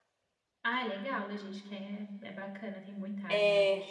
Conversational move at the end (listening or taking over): taking over